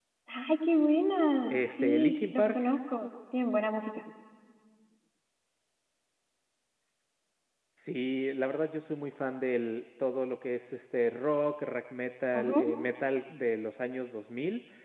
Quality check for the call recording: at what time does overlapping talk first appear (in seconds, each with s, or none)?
1.4 s